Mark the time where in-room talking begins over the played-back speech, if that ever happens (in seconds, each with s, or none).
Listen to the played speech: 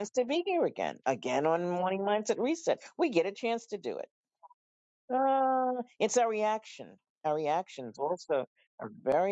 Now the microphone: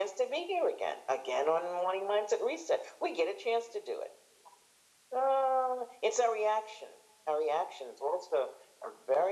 none